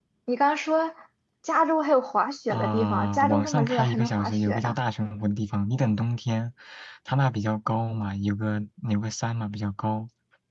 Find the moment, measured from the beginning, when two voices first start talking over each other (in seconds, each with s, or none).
2.5 s